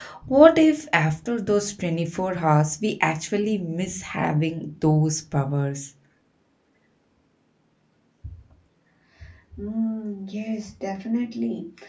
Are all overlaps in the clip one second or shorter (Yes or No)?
Yes